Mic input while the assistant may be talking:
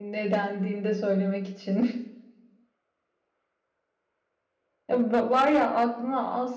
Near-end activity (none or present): present